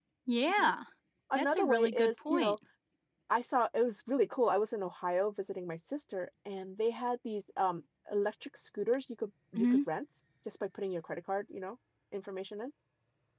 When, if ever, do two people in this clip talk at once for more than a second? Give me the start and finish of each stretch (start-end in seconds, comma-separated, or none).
1.4-2.6